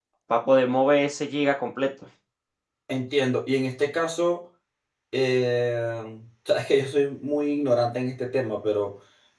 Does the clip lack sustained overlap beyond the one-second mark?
Yes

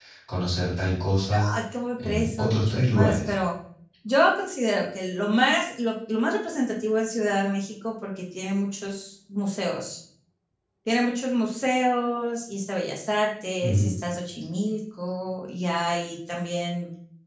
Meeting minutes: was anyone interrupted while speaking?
Yes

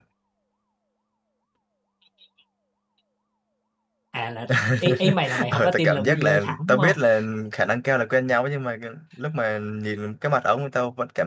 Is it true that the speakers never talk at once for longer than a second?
No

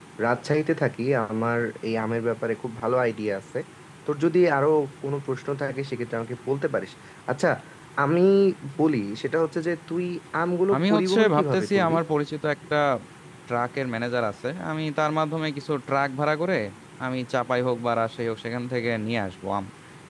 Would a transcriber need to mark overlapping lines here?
Yes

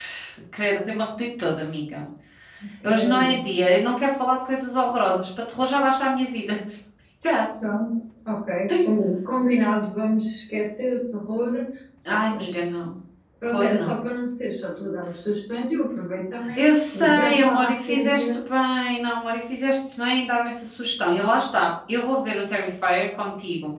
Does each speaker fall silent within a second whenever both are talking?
No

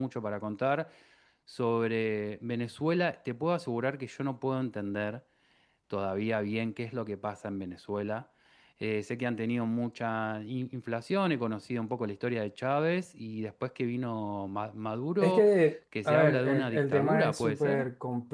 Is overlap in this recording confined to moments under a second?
No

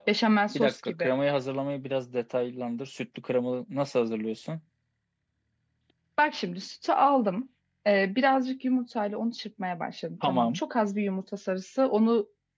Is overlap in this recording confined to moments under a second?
Yes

